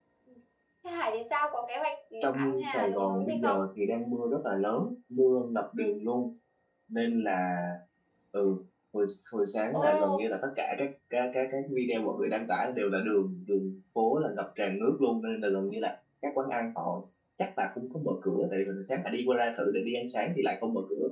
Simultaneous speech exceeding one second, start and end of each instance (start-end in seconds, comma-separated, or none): 2.2-3.6